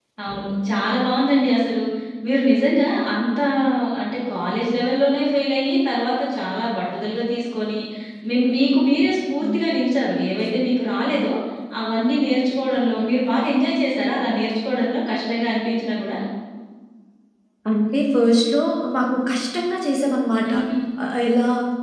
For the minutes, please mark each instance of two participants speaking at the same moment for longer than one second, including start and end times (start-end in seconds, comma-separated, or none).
none